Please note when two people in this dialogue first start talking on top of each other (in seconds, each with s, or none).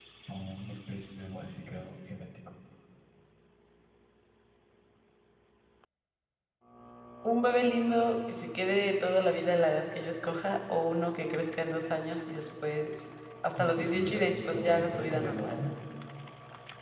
13.6 s